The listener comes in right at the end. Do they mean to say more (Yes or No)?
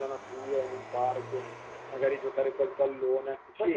Yes